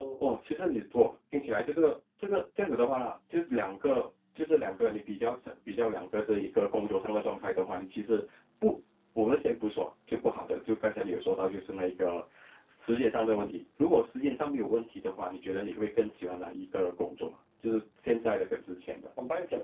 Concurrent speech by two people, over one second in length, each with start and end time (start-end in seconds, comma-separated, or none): none